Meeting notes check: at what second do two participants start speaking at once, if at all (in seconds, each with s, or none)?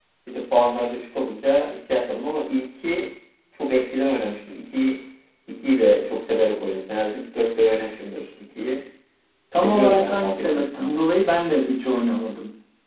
9.6 s